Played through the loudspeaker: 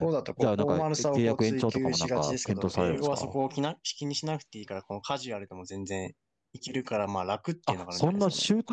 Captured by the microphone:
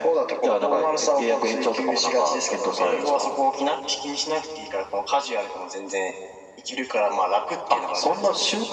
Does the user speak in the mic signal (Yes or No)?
No